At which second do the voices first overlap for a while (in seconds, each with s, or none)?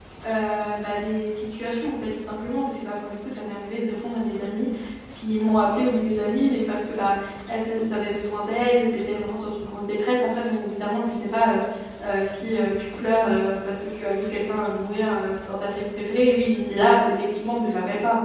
none